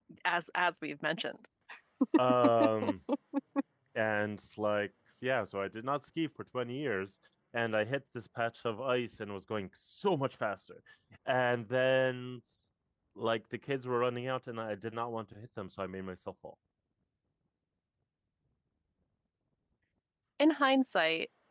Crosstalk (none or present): none